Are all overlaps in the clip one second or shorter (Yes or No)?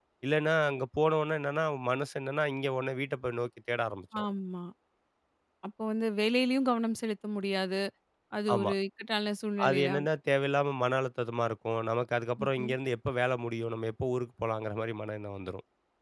Yes